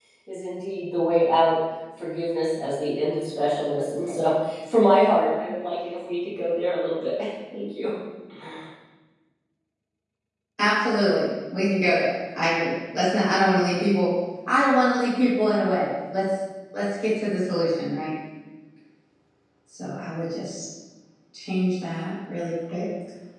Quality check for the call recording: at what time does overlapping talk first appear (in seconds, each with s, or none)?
none